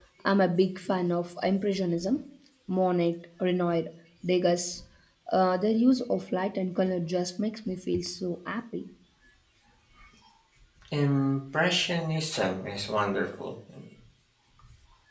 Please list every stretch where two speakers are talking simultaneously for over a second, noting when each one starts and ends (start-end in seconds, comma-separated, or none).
none